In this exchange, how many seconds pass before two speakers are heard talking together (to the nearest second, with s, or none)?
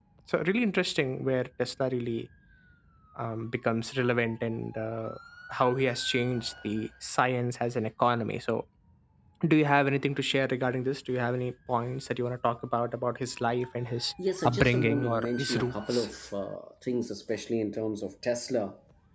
14 s